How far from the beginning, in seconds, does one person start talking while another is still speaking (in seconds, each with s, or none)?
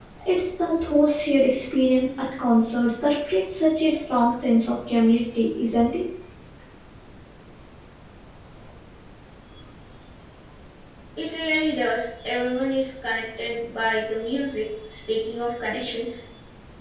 none